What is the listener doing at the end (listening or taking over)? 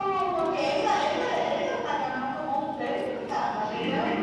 taking over